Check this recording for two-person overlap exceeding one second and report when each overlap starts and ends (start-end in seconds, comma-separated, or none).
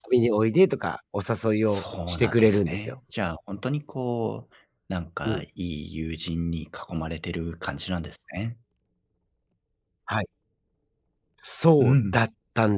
1.7-2.9